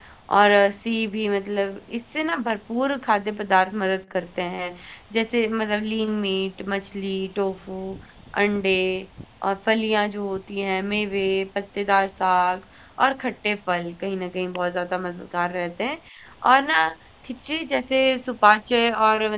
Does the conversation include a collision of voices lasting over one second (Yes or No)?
No